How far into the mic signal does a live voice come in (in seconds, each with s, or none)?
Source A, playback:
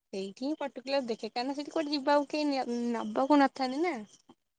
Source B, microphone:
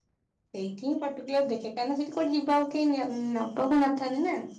none